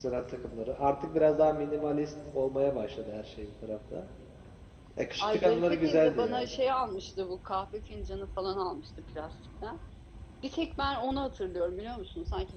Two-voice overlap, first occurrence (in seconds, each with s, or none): 5.2 s